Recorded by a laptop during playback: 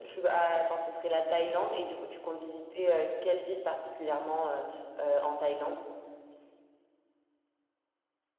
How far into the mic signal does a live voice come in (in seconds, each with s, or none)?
none